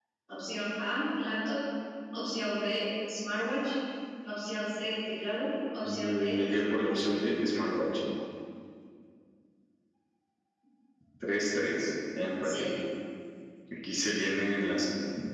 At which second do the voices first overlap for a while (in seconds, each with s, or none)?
5.8 s